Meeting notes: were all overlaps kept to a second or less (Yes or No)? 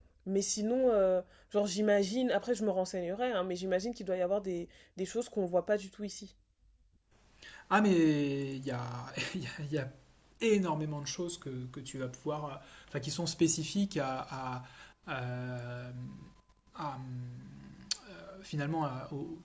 Yes